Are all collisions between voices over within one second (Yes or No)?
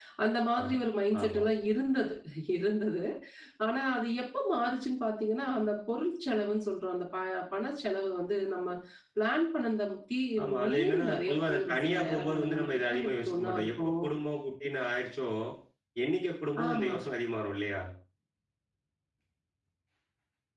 No